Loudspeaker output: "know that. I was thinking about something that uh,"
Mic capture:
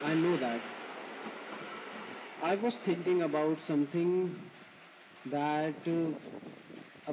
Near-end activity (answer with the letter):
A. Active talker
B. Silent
B